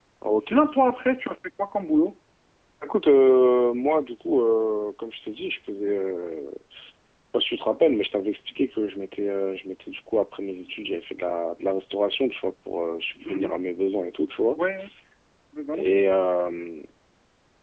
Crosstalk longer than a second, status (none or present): none